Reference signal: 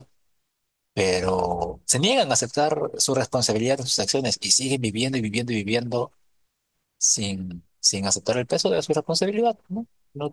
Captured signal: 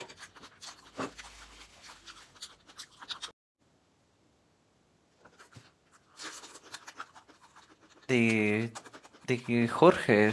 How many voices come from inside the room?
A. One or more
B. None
A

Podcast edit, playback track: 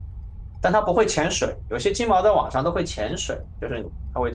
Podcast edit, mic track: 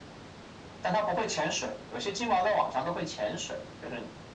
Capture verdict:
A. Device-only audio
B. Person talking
A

